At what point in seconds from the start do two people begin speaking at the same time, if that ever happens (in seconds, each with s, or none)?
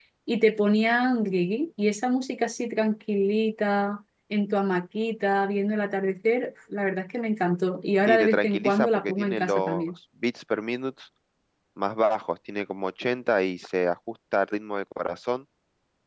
8.1 s